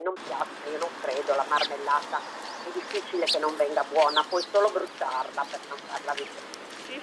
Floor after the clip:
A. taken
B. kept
A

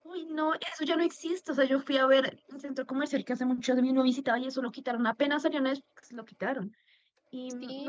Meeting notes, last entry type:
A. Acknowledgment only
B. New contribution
B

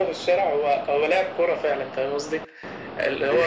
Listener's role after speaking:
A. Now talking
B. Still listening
B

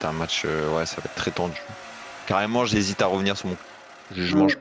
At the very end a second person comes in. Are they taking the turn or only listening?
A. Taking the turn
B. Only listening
A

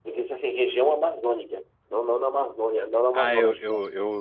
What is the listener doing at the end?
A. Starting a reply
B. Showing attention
A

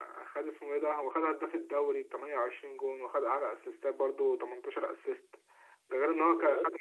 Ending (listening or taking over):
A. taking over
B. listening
B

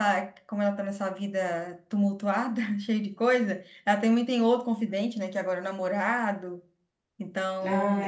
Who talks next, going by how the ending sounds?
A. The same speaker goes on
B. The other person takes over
A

